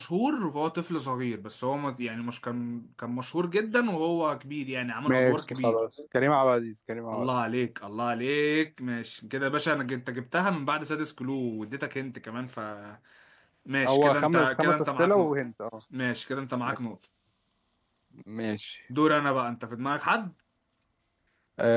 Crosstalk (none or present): present